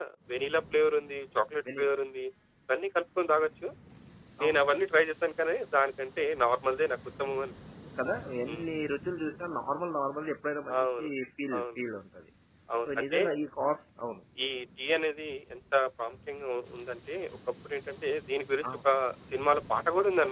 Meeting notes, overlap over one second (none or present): none